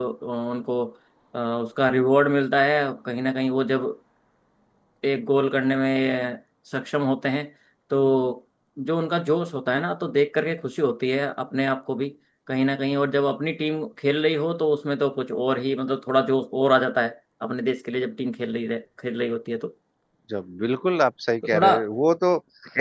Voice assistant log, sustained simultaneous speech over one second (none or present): none